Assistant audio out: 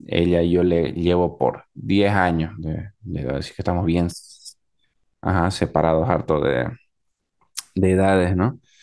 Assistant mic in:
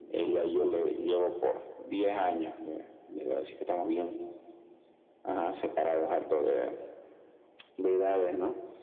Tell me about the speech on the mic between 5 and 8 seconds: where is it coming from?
echo only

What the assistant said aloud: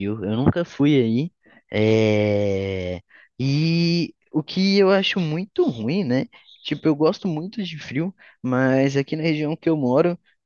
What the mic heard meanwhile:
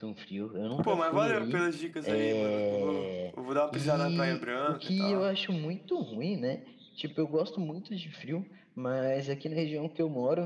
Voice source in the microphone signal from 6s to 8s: echo only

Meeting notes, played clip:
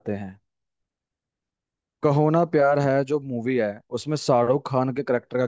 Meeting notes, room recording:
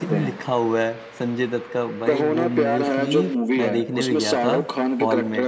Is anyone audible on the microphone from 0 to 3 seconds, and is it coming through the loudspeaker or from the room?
both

